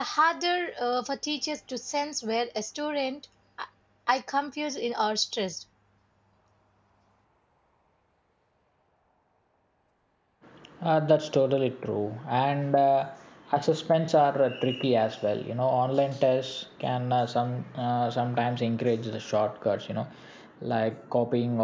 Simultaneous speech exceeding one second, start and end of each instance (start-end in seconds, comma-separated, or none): none